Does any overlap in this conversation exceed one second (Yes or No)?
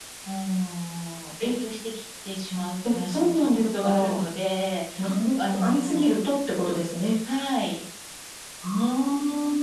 Yes